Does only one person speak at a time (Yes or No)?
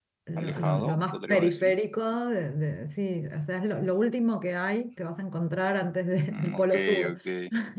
No